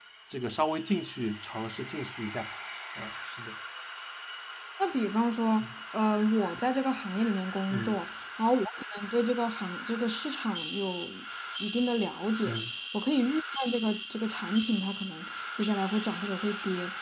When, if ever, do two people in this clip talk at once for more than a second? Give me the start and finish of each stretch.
none

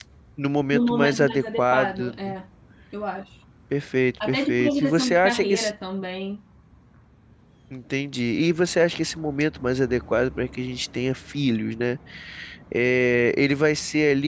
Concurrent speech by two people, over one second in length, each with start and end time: 0.7-2.3, 4.3-5.7

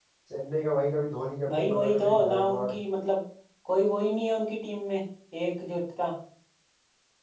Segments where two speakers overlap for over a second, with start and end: 1.5-2.7

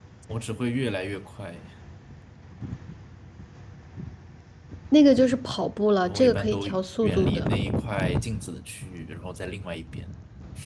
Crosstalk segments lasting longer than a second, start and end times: 6.0-7.5

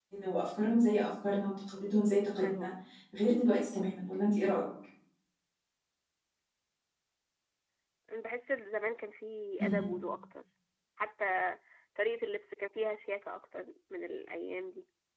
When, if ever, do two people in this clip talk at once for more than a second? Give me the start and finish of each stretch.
none

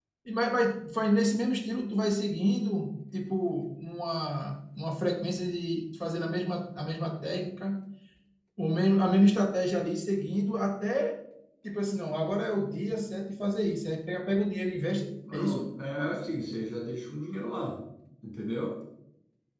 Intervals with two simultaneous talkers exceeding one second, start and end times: none

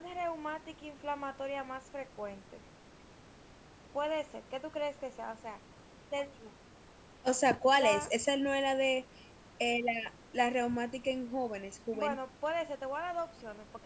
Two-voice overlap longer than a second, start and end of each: none

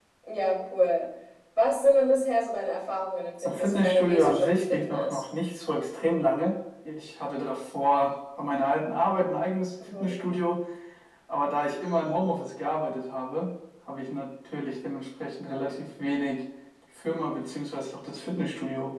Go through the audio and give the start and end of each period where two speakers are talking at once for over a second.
3.4-5.2

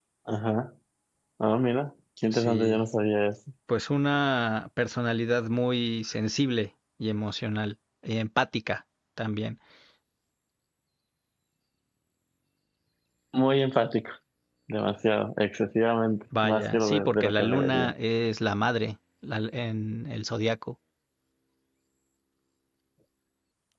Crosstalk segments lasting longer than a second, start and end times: 16.4-17.9

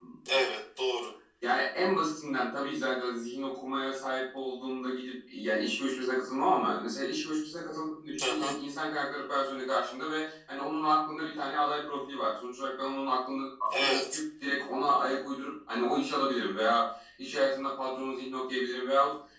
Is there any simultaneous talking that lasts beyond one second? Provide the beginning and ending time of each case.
none

